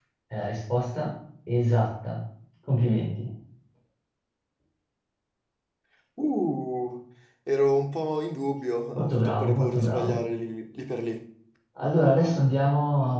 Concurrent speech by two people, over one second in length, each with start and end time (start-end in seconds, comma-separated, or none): 8.9-10.2